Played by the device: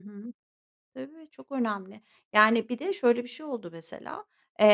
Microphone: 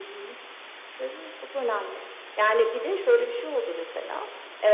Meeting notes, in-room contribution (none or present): none